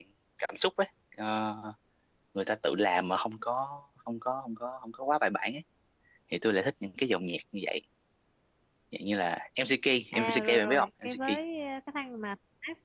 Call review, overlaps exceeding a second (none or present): present